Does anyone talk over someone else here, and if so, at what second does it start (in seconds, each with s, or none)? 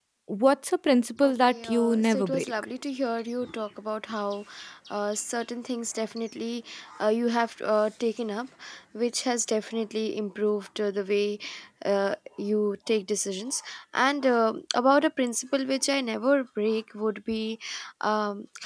1.2 s